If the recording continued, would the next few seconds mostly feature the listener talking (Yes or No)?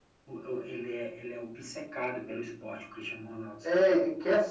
Yes